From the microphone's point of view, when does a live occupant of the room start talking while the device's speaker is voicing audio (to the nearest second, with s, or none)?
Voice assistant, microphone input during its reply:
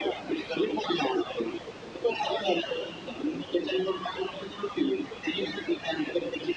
none